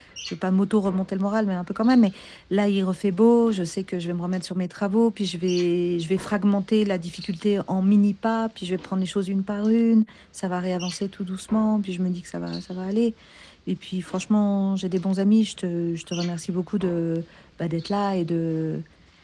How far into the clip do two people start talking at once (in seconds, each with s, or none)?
none